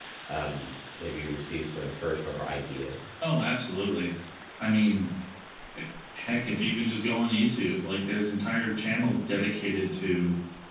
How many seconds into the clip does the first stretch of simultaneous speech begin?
none

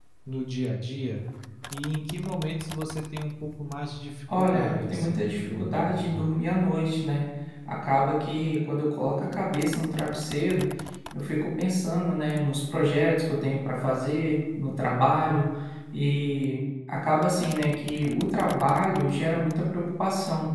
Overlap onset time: 4.3 s

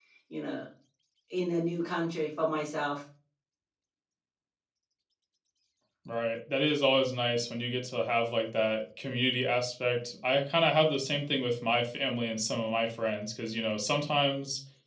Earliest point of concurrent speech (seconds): none

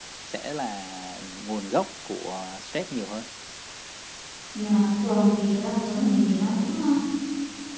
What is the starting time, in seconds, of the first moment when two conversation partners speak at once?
none

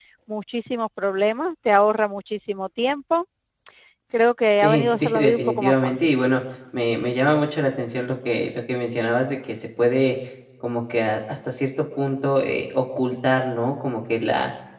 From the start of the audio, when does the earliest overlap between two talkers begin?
4.6 s

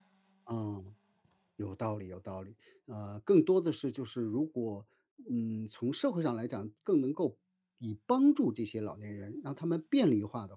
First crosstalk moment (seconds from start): none

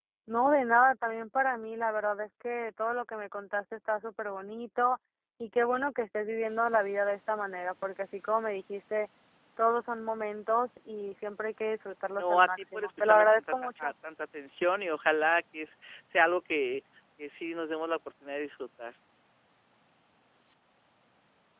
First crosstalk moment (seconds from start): 12.2 s

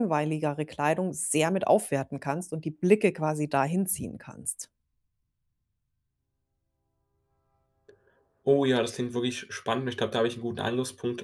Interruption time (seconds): none

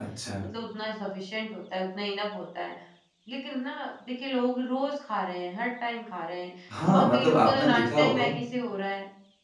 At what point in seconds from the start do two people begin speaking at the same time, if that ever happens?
6.7 s

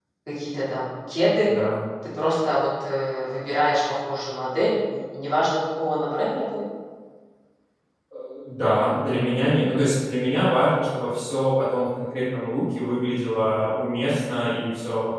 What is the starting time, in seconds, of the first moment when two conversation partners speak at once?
none

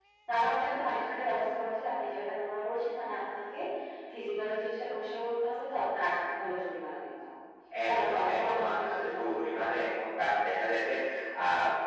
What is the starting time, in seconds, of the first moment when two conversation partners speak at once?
7.7 s

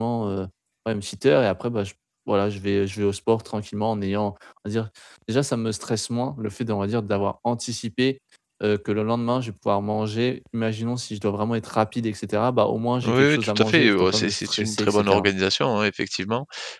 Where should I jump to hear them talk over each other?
13.0 s

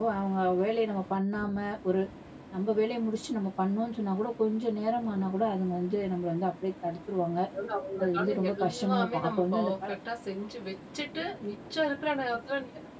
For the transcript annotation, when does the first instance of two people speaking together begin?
8.0 s

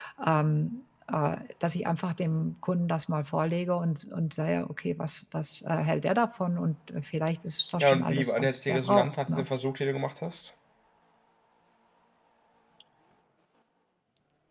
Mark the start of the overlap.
7.8 s

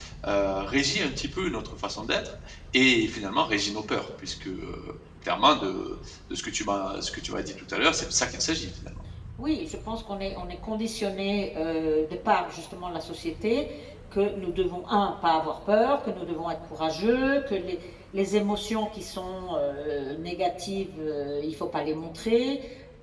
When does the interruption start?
none

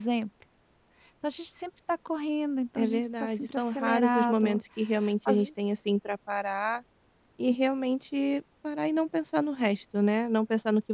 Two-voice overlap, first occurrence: 2.8 s

